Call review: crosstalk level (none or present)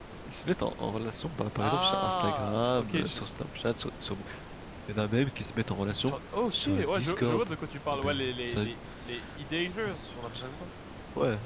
present